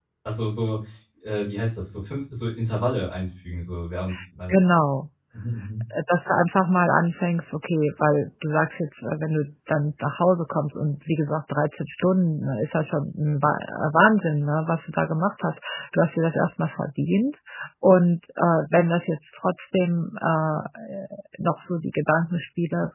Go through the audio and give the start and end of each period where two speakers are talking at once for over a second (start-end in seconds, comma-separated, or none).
none